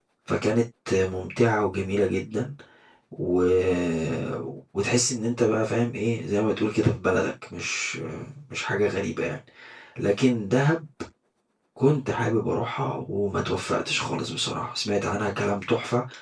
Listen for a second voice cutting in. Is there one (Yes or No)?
No